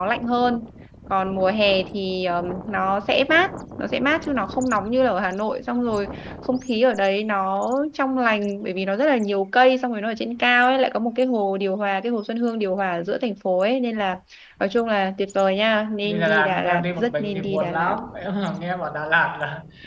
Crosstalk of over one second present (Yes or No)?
Yes